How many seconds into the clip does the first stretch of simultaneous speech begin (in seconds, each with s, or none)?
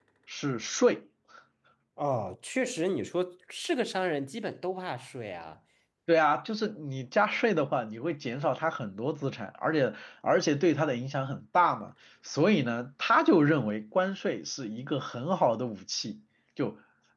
none